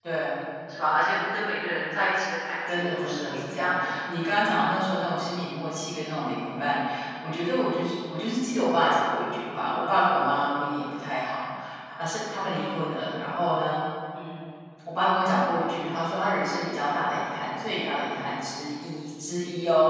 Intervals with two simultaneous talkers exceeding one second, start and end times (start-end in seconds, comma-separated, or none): 2.7-4.0